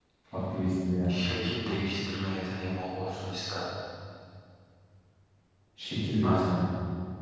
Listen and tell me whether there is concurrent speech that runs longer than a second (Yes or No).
No